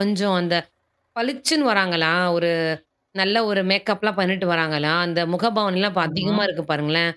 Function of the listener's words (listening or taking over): listening